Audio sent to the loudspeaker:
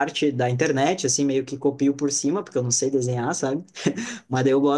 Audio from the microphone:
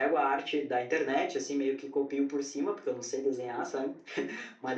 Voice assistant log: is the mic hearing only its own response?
Yes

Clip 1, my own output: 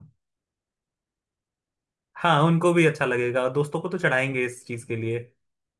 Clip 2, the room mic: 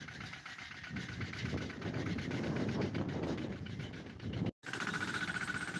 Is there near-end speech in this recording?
No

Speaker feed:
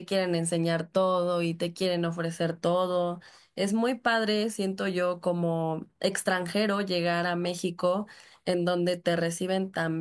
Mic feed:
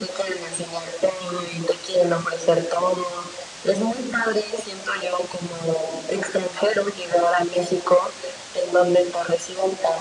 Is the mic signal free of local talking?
Yes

